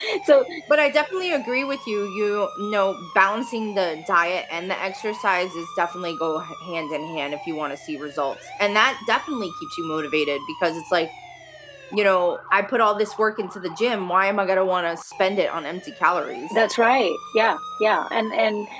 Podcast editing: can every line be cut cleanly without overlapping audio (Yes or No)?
Yes